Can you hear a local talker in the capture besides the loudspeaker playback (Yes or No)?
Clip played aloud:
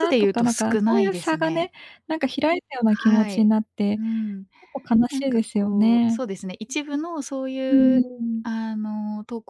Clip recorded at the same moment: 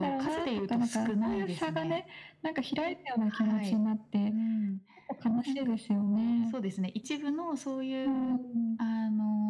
No